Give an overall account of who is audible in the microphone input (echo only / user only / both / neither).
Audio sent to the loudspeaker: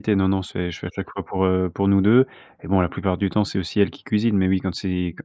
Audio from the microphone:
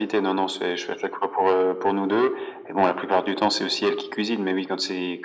echo only